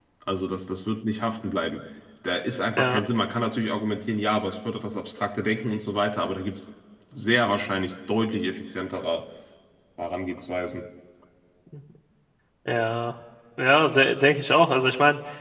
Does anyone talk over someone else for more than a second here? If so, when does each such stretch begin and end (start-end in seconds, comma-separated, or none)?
none